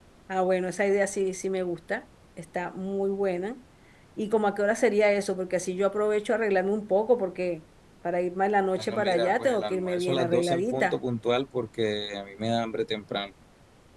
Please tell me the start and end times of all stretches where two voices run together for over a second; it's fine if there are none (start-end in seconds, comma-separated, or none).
8.8-11.0